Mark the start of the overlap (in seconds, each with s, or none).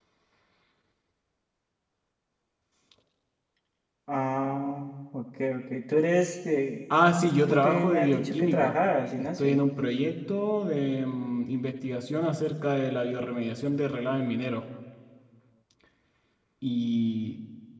6.9 s